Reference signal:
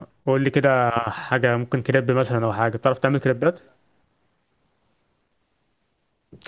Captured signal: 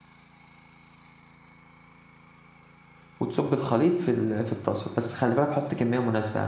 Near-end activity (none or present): present